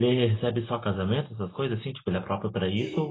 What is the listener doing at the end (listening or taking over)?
taking over